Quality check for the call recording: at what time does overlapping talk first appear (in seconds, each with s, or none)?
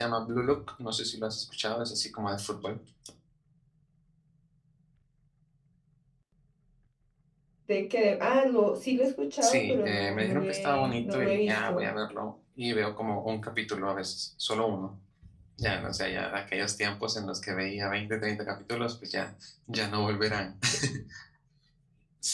9.4 s